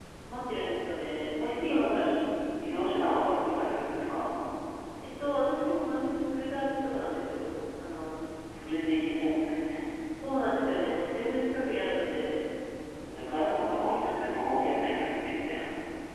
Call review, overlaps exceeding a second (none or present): present